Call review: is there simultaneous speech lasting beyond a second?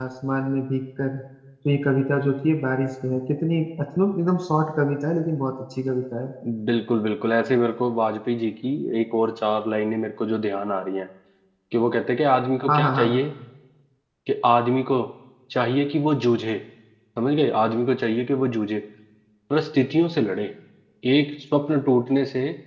No

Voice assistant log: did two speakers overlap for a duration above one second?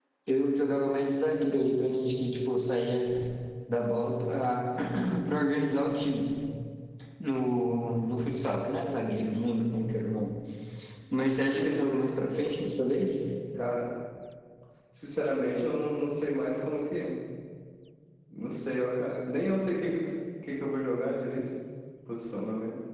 No

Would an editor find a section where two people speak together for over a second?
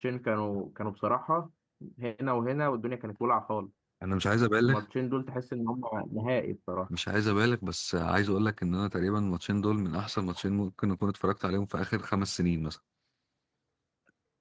No

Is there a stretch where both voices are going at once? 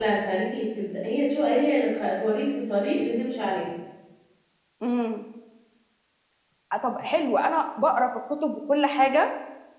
No

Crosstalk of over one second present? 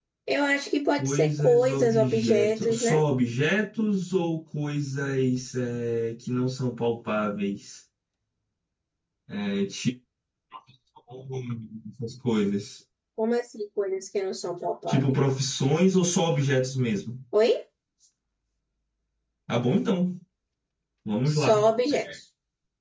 Yes, from 1.0 s

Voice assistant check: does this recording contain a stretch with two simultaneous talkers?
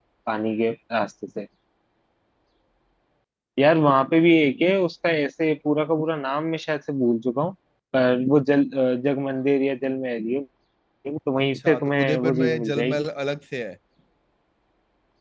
Yes, from 11.5 s

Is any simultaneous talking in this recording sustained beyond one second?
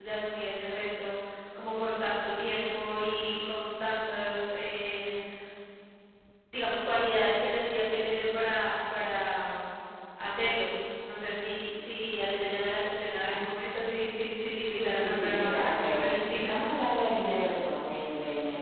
Yes, from 14.7 s

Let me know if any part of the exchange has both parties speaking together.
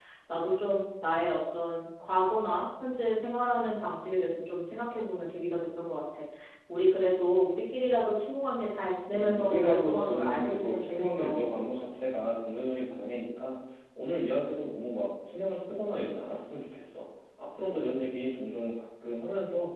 Yes, from 9.1 s

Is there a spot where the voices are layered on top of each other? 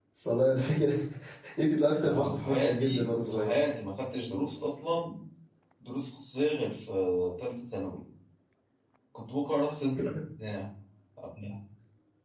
Yes, from 2.0 s

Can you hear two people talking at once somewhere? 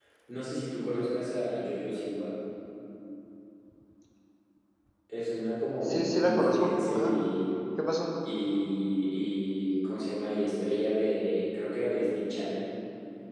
Yes, from 5.8 s

